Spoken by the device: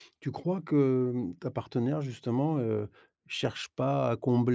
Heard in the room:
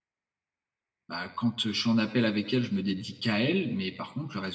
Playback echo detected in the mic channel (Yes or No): No